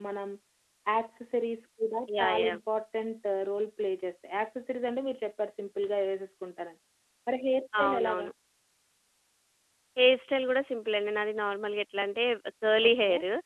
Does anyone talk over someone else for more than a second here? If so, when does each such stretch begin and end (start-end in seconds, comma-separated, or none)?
none